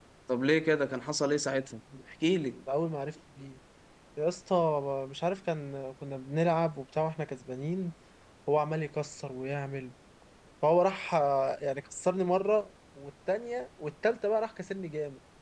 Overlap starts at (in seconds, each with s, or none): none